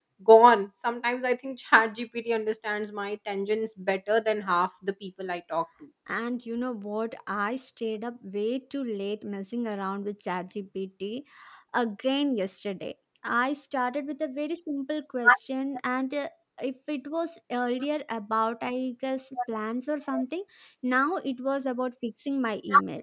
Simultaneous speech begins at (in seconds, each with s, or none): none